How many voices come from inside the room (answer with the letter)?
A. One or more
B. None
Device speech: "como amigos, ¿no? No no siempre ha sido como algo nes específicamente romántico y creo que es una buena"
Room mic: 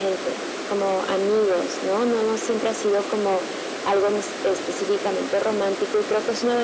B